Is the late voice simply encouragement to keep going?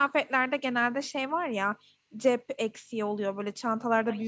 Yes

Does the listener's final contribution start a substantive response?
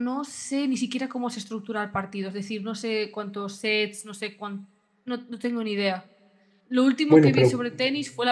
No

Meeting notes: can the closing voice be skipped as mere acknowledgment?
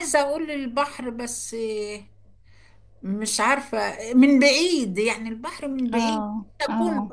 No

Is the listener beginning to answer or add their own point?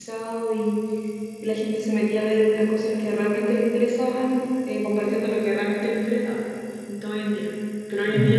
No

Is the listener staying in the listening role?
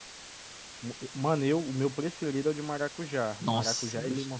No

